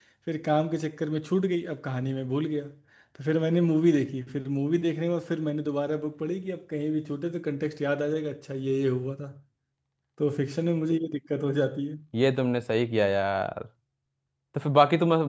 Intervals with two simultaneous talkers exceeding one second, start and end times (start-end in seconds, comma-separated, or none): none